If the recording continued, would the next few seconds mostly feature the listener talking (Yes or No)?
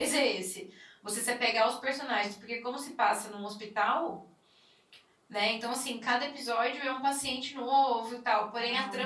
No